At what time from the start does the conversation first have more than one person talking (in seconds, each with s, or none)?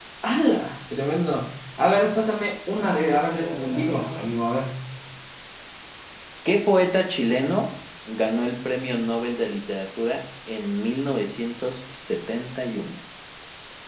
2.7 s